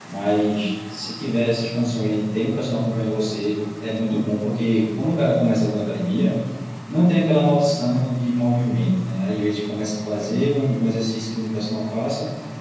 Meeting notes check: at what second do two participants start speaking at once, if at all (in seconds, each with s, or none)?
none